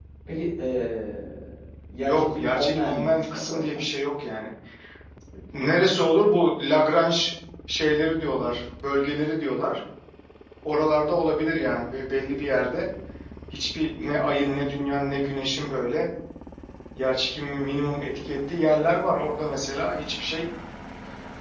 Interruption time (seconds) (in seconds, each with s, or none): 2.0 s